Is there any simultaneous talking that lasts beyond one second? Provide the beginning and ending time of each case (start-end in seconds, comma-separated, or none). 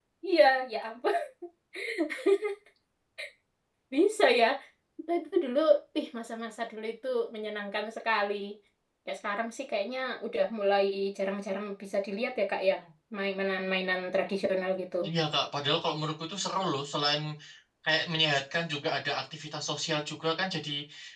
none